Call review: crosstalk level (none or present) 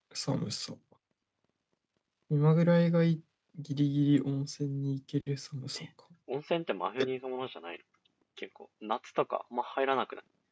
none